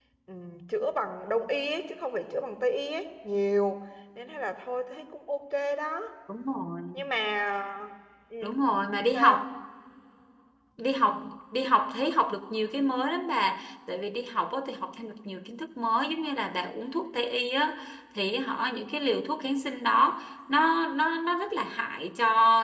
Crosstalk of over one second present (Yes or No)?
No